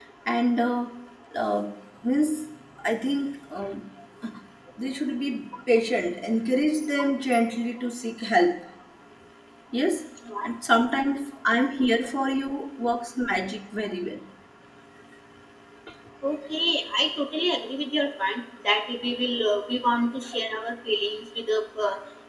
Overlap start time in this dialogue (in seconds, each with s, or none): none